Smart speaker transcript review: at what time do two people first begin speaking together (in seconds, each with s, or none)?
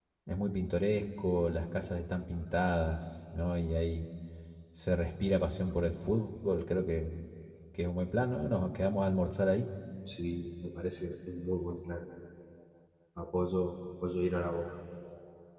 none